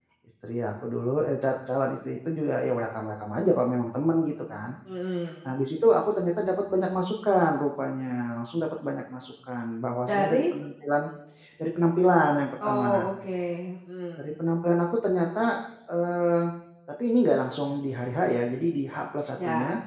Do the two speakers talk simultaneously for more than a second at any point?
No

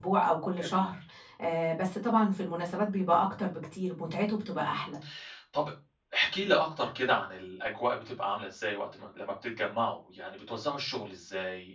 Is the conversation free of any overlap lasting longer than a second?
Yes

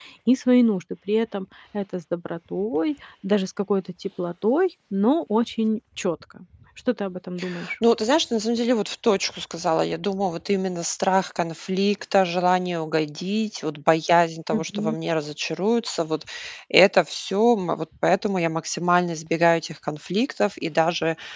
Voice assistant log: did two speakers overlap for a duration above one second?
No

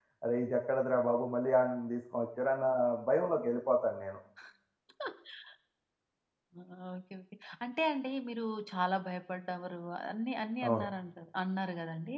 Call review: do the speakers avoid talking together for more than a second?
Yes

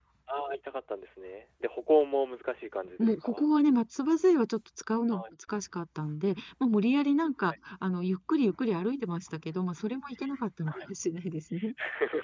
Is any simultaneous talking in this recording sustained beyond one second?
No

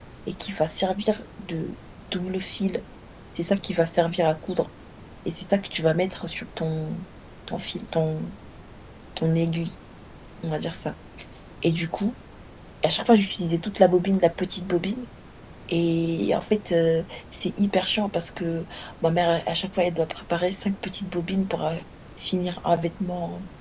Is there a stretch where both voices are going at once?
No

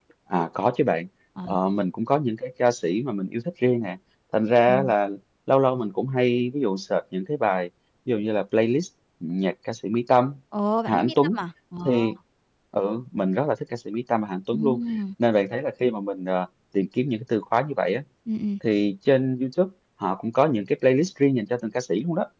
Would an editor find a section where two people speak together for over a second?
No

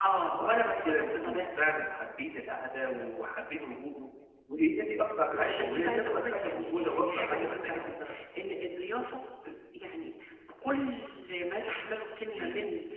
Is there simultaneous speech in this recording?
Yes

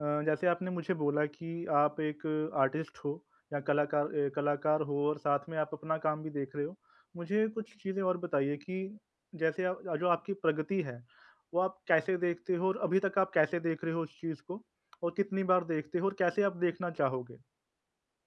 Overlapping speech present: No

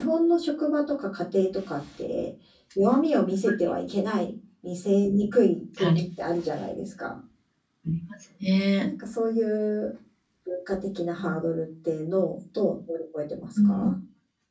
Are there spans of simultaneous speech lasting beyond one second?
No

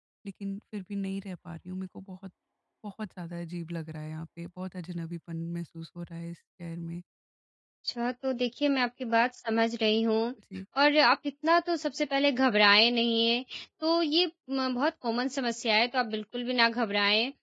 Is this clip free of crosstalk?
Yes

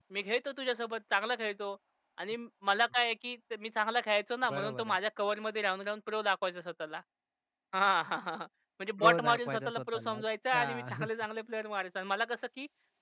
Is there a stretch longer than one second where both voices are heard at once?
Yes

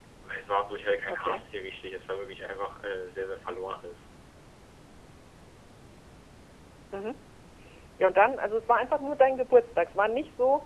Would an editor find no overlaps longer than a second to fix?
Yes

